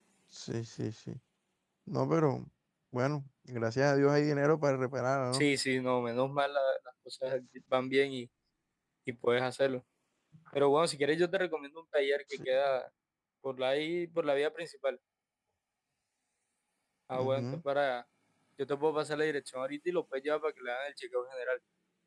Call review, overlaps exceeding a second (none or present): none